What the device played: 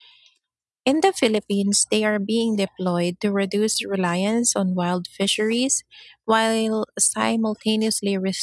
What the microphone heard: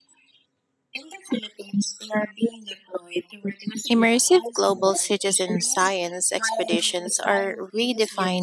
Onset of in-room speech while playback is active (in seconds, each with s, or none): 3.9 s